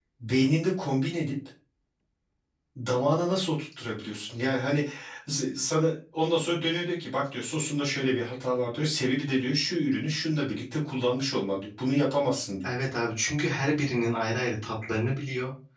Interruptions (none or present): none